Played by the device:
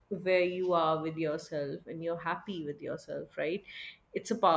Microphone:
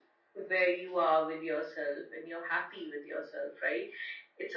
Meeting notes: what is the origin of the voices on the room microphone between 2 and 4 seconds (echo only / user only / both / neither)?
echo only